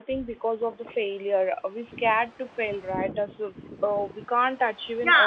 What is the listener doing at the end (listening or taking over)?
taking over